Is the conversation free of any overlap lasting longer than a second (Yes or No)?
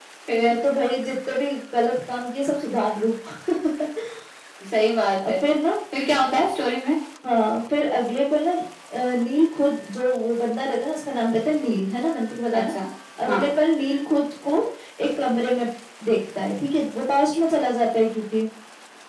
Yes